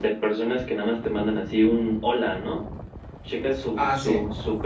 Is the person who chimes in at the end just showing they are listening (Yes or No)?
Yes